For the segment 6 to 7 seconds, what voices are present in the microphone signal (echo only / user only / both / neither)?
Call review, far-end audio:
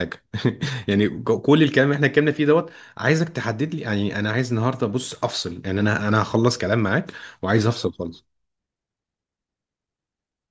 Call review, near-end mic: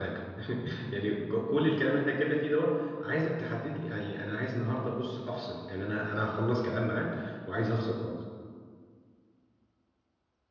echo only